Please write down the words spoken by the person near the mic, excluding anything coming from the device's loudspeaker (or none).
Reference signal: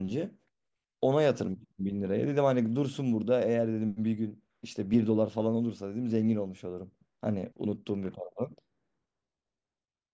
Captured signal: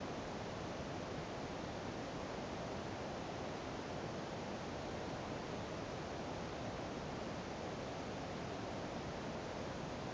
none